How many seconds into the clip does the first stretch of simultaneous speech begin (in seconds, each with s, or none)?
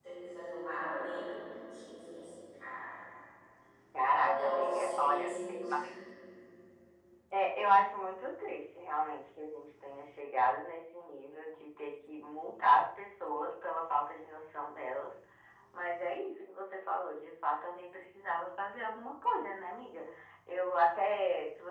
4.1 s